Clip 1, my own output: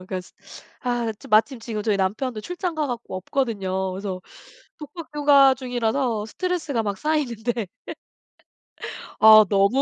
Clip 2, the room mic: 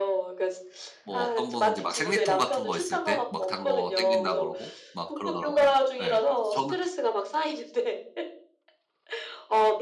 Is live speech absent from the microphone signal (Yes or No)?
No